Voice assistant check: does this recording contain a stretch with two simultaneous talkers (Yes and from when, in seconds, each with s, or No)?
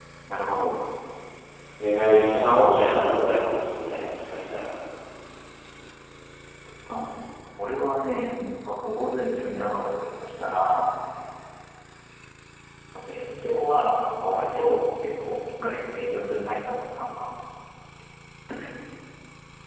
No